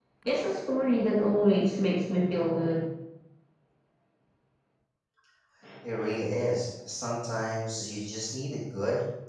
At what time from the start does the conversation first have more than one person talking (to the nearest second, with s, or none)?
none